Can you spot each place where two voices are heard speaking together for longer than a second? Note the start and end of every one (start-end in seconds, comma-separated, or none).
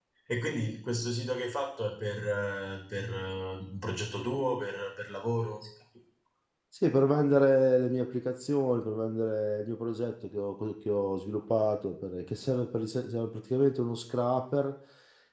none